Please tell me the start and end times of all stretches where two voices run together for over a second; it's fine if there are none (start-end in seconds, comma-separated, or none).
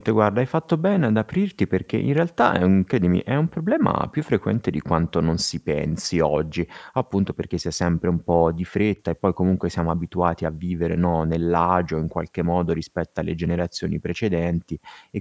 none